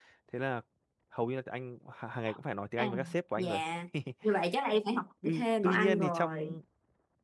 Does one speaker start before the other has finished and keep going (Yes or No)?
Yes